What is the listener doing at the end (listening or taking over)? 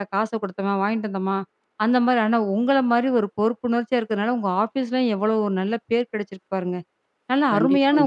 listening